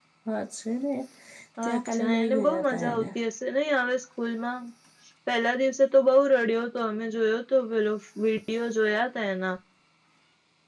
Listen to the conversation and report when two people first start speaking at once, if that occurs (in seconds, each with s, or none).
1.6 s